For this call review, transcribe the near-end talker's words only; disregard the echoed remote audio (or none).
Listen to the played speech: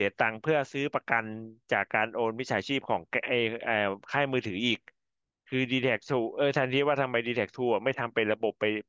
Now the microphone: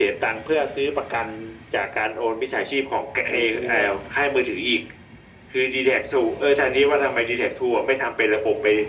ไอ้ตัว